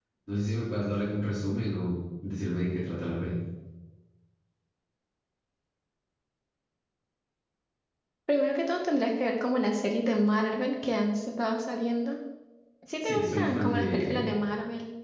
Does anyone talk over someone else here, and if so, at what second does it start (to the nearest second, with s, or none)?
13 s